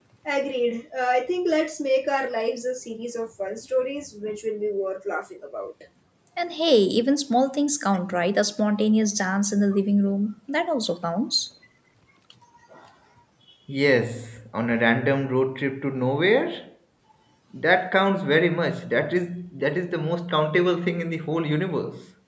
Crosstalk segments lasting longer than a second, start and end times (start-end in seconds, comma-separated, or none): none